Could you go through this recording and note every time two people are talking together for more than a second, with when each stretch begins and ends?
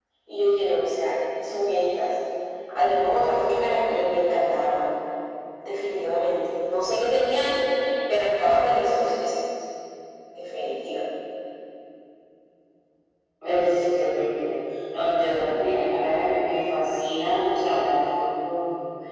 none

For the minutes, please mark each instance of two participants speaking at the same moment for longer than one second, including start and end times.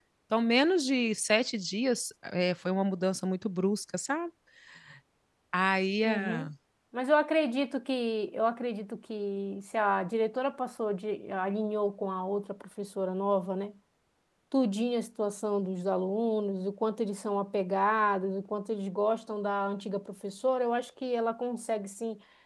none

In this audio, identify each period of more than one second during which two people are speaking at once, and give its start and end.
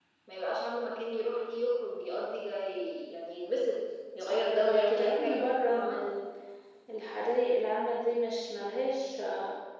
4.2-6.0

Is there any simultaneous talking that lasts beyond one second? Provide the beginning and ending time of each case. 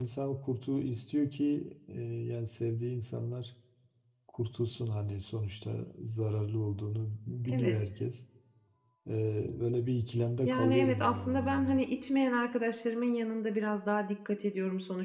10.4-11.8

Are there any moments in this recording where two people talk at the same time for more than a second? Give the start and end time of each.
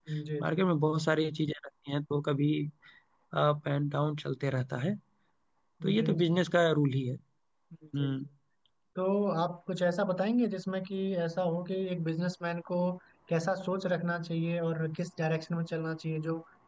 none

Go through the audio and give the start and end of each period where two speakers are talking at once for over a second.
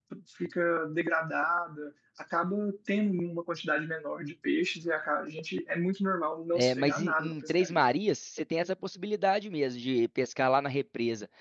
6.5-7.8

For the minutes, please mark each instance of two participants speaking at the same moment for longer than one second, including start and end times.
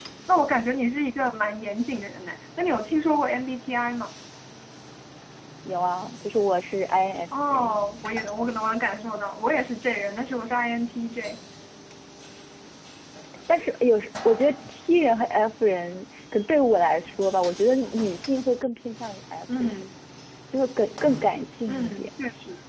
none

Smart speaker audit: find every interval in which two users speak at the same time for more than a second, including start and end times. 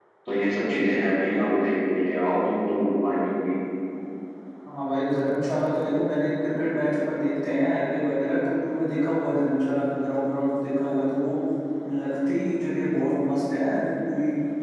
none

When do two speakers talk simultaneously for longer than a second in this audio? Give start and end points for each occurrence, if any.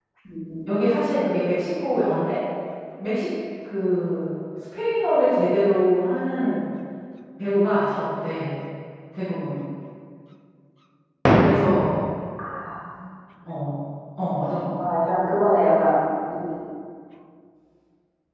none

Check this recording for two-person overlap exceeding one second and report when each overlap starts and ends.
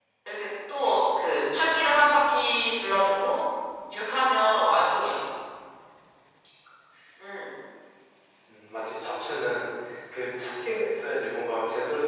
none

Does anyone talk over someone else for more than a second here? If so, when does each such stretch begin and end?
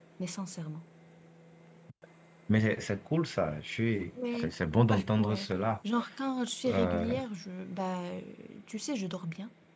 none

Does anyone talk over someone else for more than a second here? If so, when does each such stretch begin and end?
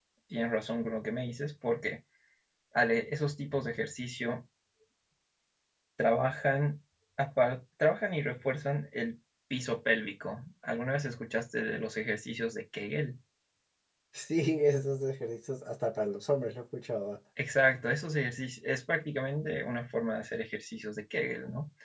none

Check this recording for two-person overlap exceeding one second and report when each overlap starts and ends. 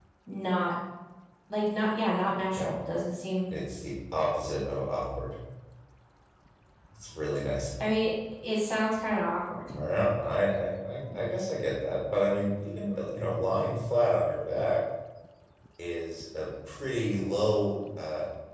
none

